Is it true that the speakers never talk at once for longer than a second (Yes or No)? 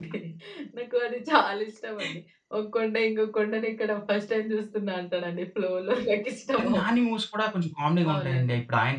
Yes